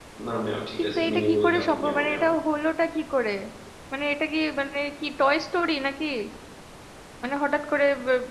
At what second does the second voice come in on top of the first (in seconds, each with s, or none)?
0.8 s